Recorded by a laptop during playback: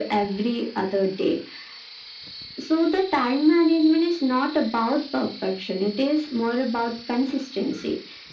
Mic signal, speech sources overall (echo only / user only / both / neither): echo only